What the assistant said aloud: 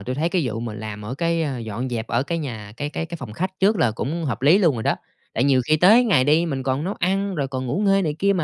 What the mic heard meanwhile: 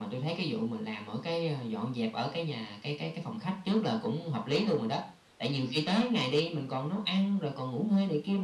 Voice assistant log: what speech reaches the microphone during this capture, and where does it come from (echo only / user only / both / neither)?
echo only